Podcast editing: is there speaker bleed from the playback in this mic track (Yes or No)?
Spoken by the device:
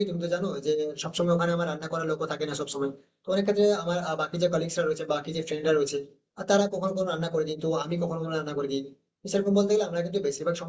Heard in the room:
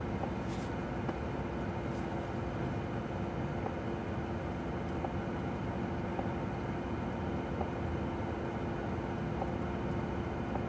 No